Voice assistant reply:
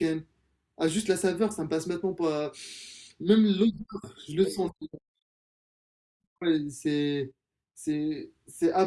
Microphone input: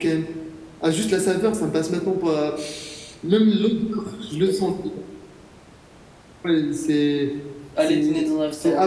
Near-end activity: present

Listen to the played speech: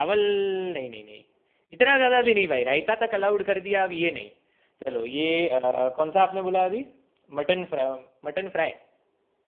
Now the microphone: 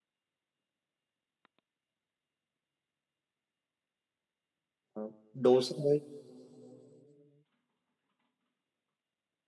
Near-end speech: present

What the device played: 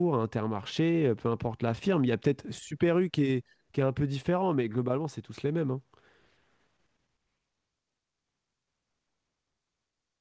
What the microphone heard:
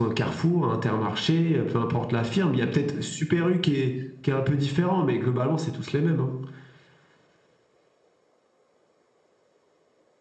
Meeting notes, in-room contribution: none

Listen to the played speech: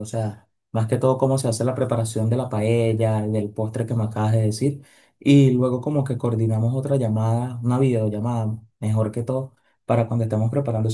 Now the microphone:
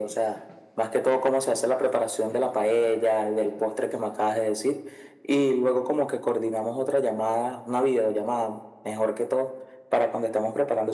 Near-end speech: none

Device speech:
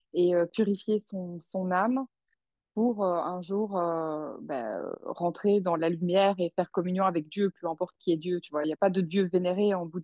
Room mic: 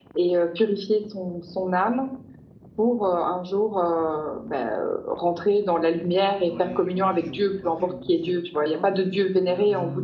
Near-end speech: present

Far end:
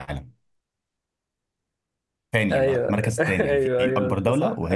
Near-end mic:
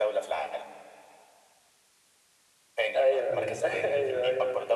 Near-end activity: present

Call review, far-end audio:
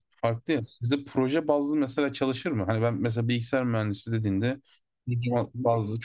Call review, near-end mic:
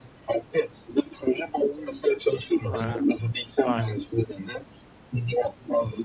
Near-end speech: present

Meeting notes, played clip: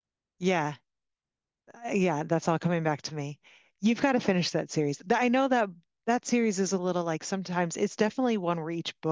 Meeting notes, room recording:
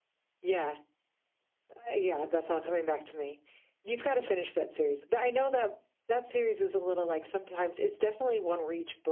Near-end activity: none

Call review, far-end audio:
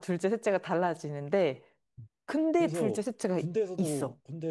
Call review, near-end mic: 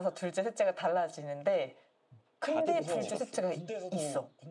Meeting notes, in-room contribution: present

